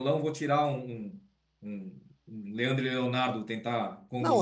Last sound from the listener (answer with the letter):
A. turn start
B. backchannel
A